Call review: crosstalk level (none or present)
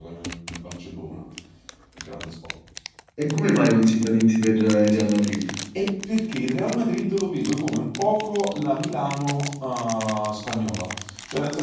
none